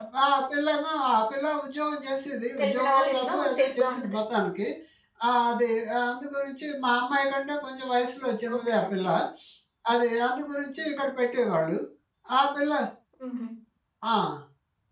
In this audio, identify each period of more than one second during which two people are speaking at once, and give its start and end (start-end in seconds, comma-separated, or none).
2.6-4.2